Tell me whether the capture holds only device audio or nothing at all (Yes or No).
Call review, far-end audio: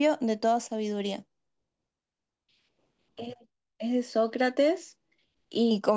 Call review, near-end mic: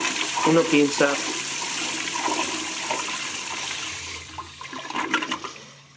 No